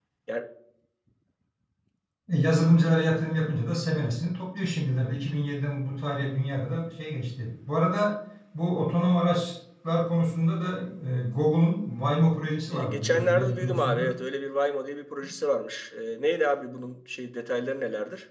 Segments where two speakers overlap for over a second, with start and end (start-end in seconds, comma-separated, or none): 12.7-14.1